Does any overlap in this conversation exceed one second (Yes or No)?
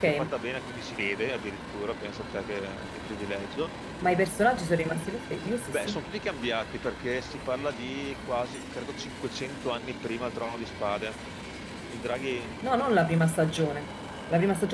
No